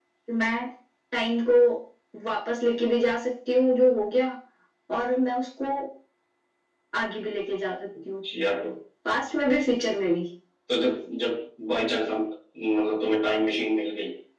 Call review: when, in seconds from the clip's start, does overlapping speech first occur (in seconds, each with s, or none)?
none